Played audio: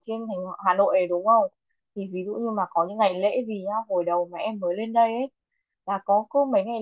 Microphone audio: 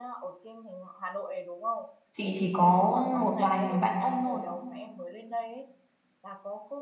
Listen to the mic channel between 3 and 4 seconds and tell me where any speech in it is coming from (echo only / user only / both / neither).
both